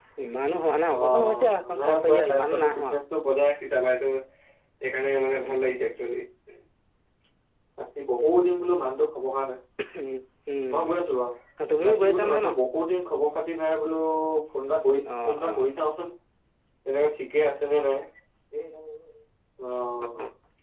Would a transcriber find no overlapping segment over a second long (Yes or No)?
No